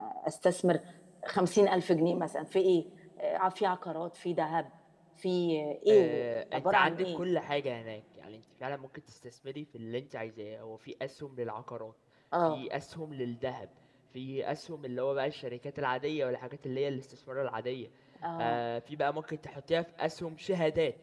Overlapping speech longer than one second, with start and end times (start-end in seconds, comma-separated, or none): 5.9-7.2